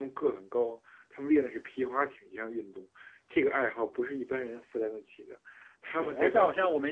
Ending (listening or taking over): taking over